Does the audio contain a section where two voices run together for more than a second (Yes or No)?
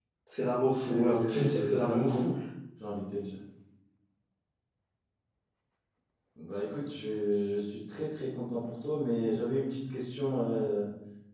Yes